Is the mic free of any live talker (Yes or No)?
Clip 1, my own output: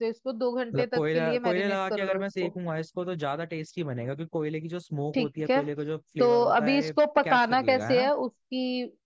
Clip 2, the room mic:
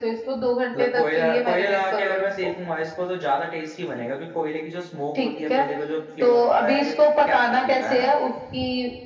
Yes